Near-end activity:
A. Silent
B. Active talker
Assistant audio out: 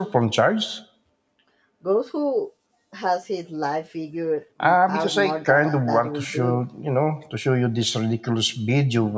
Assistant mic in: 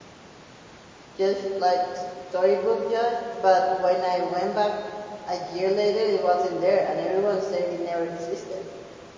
B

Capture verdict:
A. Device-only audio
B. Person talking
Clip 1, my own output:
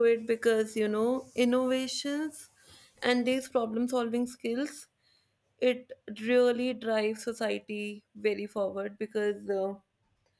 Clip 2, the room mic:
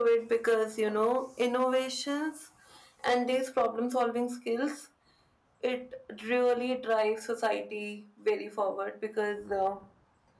A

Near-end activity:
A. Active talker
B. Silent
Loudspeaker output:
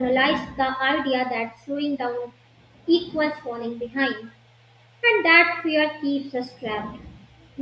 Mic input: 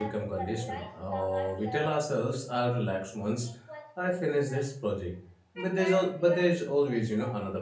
A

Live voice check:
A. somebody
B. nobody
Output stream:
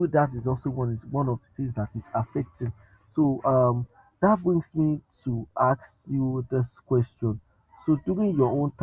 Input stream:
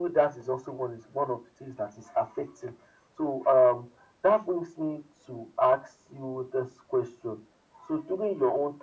B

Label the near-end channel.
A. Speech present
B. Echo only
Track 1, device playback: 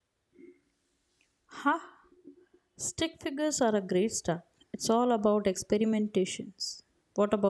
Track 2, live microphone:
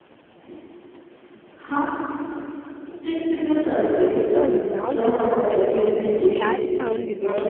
A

